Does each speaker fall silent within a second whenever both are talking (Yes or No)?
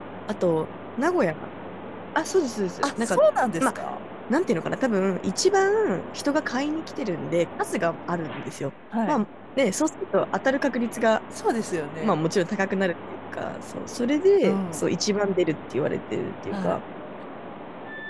Yes